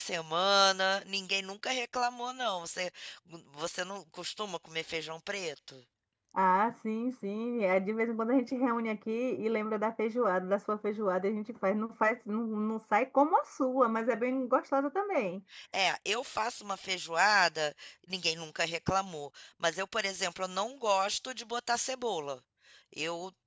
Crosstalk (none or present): none